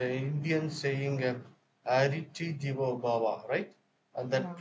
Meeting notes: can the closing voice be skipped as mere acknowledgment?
Yes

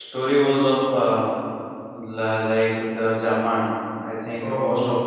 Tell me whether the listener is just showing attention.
Yes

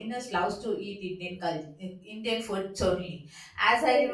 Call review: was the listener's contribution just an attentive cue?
Yes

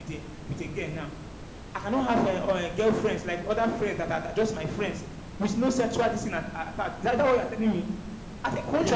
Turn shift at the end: Yes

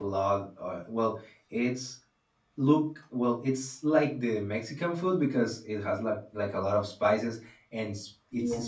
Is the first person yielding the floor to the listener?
No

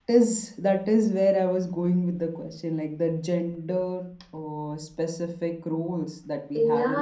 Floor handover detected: Yes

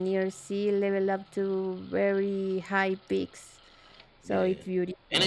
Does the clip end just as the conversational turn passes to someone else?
Yes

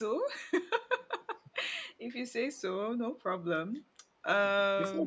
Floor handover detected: Yes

